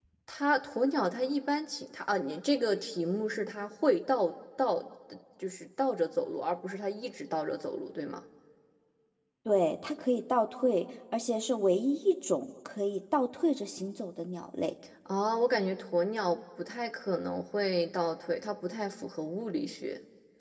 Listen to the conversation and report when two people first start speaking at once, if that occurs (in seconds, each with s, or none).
none